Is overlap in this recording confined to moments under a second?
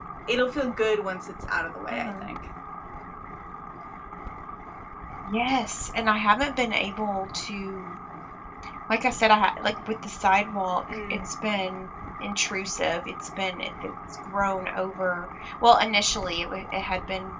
Yes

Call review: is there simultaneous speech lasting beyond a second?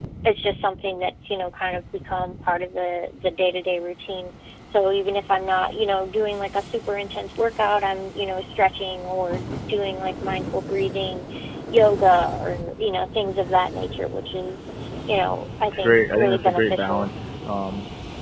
Yes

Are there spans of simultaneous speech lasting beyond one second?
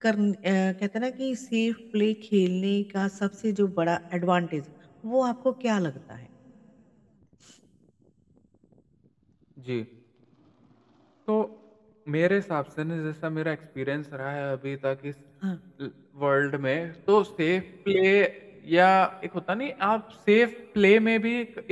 No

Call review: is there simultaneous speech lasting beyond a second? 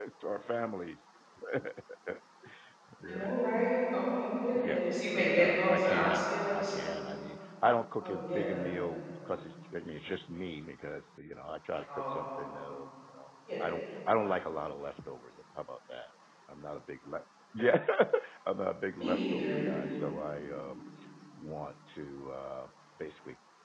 Yes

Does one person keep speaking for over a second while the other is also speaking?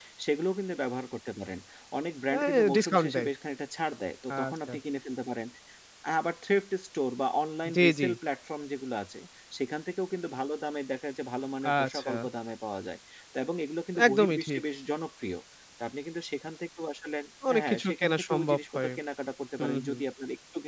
Yes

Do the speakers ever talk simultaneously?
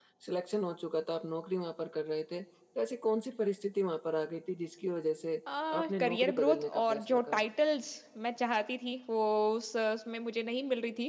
Yes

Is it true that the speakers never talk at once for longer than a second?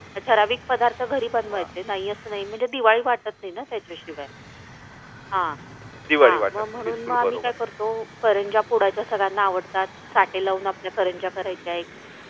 No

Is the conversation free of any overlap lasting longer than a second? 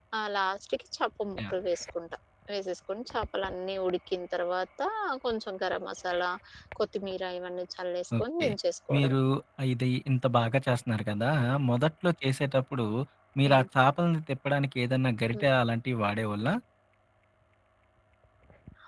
Yes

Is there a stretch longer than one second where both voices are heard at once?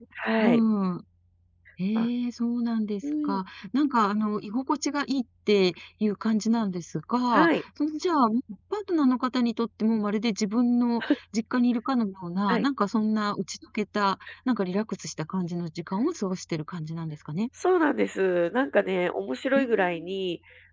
No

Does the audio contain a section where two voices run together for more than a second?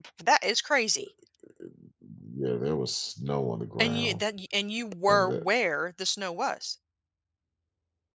No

